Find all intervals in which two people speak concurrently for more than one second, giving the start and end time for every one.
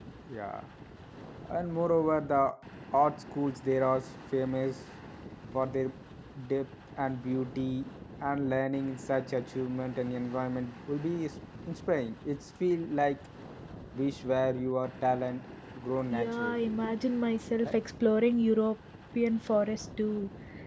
none

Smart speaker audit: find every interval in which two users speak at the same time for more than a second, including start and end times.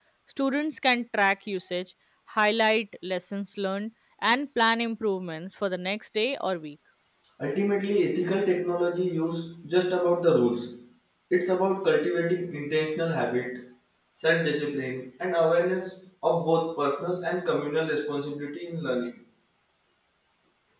none

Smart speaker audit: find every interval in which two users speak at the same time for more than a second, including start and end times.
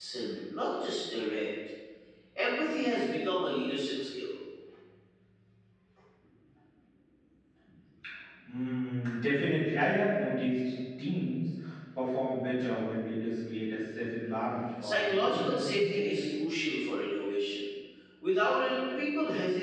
14.8-16.1

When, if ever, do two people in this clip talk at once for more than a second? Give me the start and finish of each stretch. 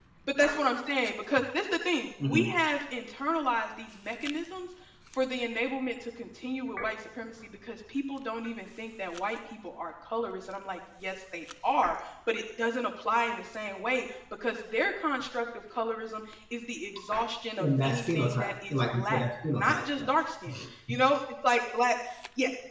17.6-20.1

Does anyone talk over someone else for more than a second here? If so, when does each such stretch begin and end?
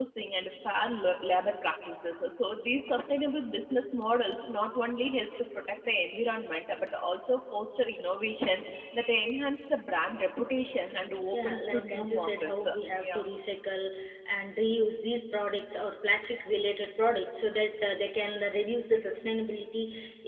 11.3-13.2

